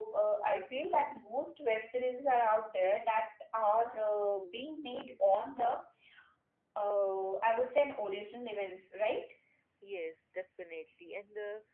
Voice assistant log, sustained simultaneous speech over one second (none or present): none